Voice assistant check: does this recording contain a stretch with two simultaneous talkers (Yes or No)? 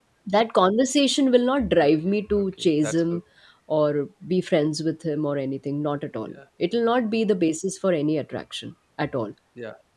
Yes